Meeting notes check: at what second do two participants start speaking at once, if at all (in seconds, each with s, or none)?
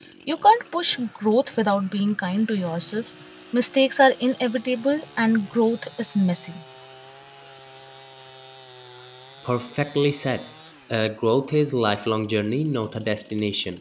none